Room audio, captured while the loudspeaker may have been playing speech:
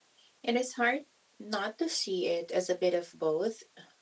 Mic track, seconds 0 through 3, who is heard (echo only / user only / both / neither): echo only